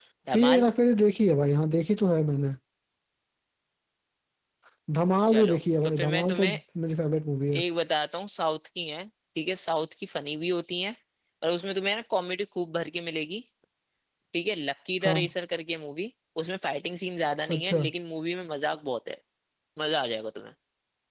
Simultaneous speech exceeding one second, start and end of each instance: 5.3-6.6

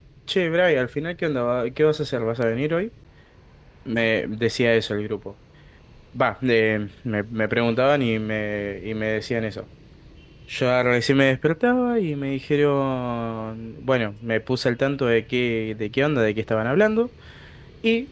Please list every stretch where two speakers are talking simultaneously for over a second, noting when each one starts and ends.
none

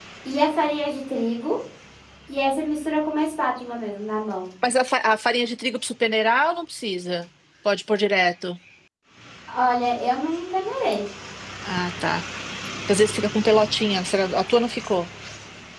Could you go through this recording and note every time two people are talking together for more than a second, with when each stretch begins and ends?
none

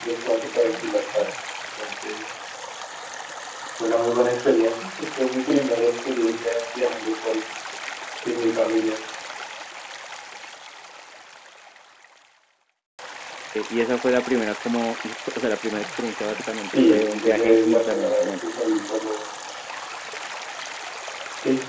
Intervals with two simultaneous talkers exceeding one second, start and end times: 16.6-18.3

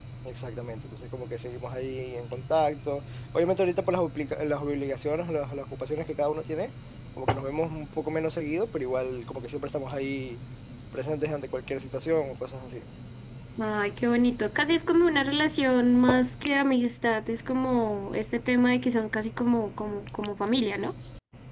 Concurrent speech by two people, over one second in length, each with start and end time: none

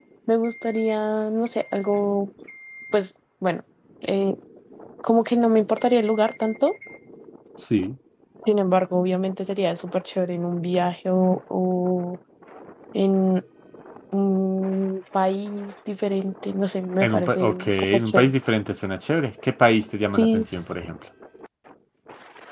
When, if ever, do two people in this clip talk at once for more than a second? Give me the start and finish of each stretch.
17.0-18.3

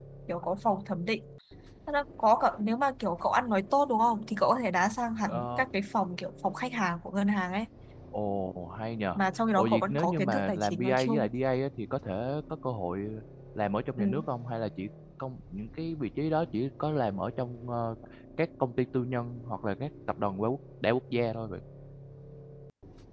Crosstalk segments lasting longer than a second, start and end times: 9.6-11.3

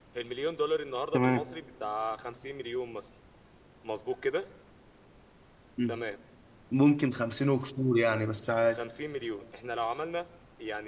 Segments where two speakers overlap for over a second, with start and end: none

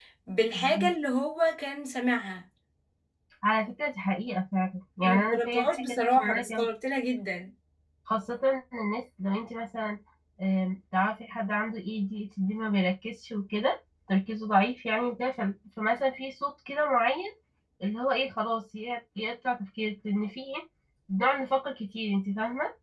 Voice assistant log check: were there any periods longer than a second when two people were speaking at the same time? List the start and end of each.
5.0-6.7

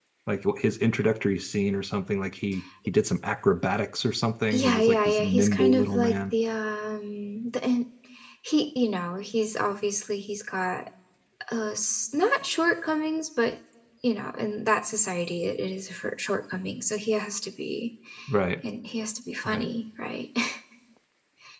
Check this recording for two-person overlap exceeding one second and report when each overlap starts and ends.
4.5-6.3

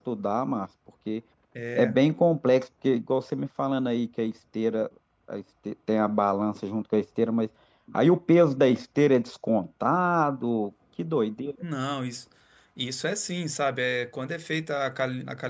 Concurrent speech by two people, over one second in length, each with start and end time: none

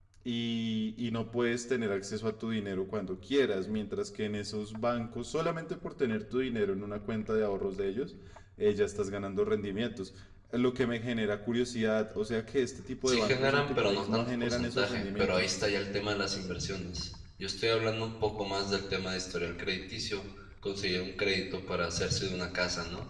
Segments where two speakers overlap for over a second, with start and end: 13.0-15.5

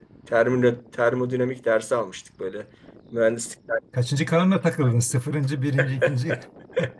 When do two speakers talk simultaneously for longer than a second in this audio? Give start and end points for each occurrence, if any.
none

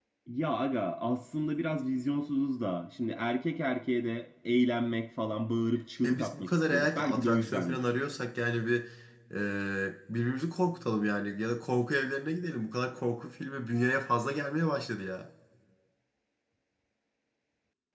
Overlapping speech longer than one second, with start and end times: 6.0-7.8

